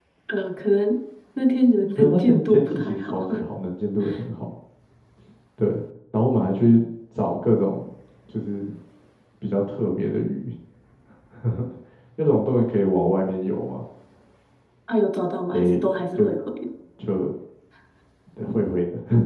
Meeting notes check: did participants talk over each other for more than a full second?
Yes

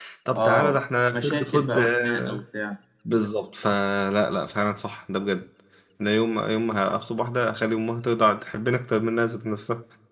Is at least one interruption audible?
Yes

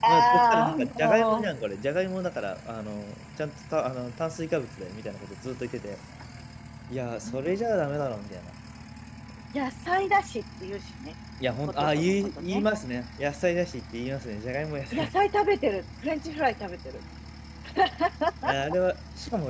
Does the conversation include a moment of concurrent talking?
Yes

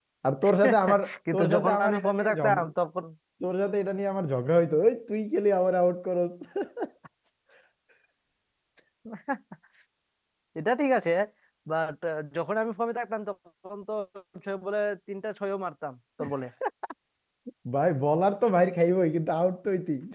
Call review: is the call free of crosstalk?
No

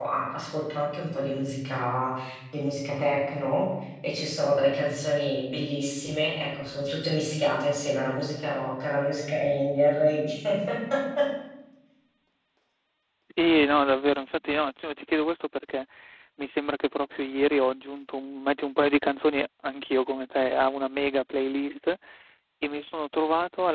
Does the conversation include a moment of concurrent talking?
No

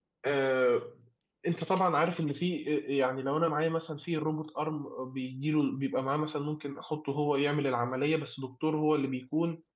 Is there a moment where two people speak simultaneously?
No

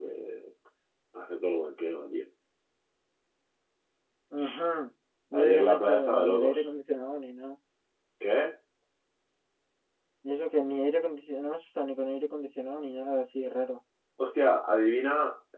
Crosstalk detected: Yes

